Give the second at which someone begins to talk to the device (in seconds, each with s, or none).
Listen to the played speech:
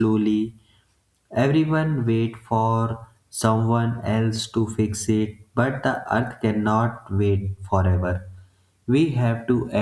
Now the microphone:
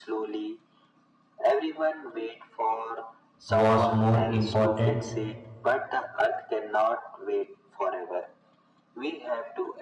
3.5 s